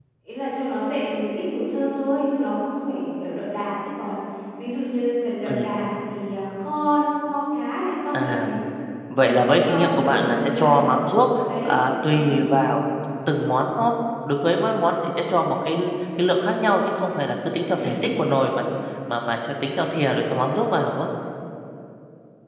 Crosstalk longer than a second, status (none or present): present